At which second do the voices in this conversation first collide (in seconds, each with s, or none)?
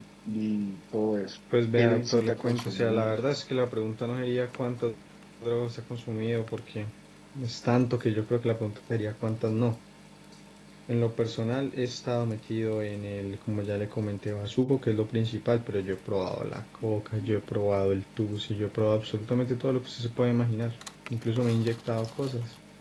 1.8 s